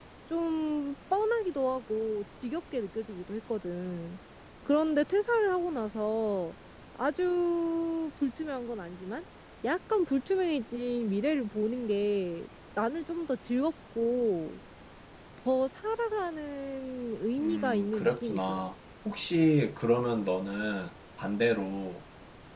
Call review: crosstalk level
present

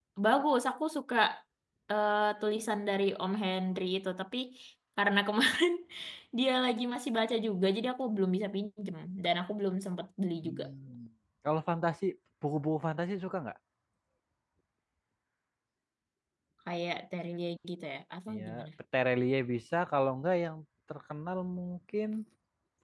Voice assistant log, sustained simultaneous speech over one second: none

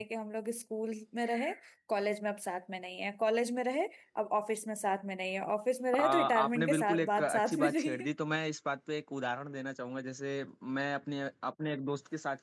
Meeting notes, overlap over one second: present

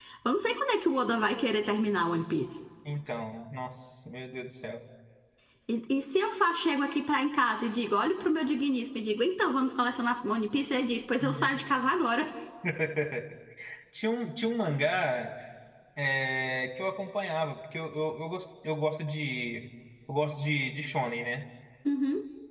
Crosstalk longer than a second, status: none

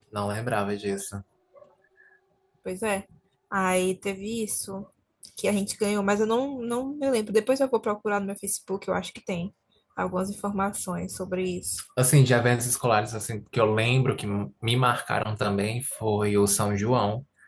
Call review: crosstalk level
none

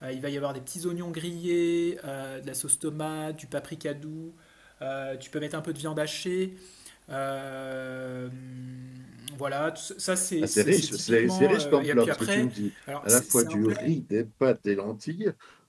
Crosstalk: present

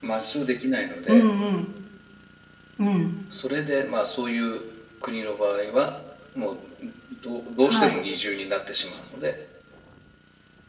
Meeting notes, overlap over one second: none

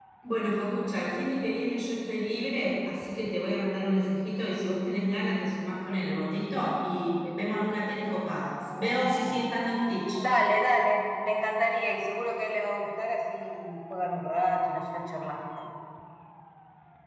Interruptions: none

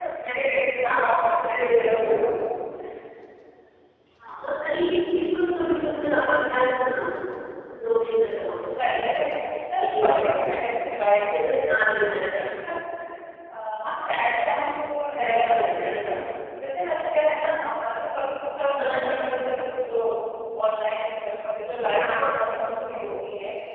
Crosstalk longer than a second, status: present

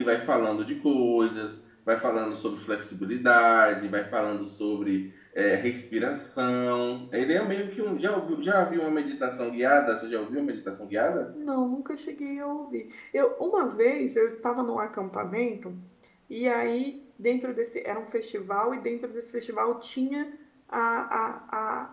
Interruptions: none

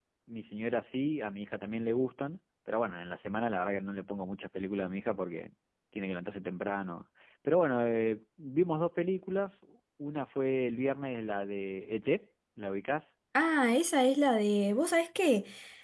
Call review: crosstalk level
none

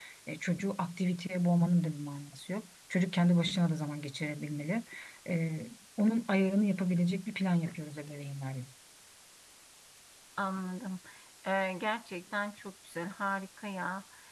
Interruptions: none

